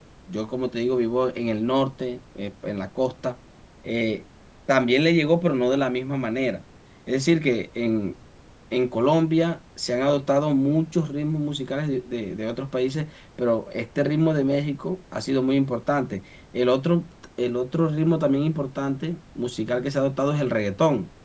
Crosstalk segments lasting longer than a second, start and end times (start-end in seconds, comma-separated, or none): none